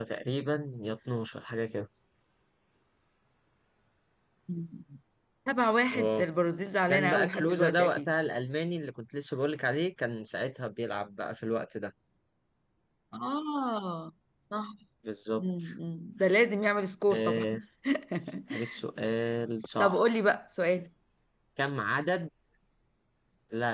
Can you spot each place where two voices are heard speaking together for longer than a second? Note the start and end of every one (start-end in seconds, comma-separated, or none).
6.9-8.1